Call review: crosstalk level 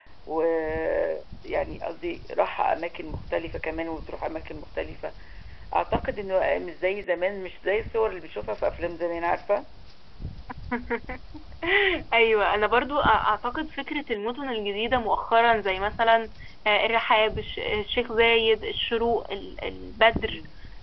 none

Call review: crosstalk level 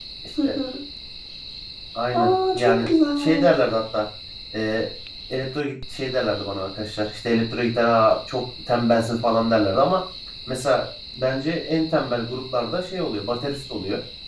present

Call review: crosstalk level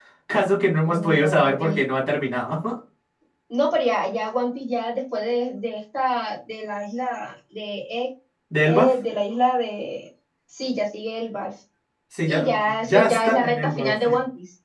present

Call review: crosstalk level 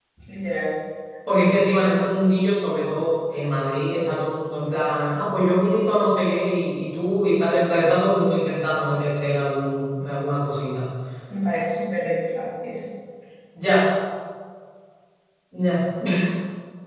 none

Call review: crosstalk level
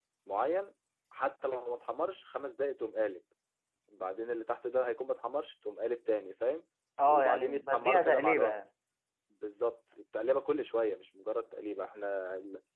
present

